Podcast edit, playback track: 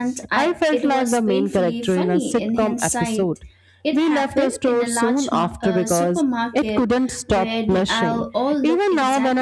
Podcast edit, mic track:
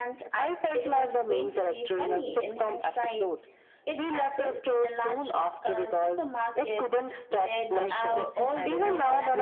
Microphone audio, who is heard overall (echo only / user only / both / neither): both